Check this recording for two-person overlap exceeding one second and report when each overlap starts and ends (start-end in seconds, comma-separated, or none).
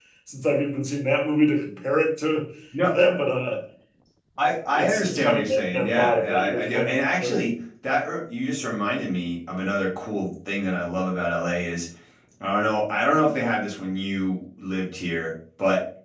4.8-7.4